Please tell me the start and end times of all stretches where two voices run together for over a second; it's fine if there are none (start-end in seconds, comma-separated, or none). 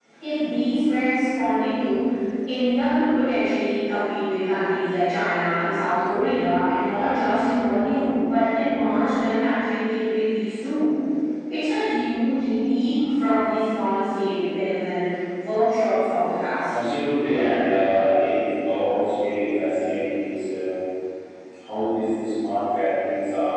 none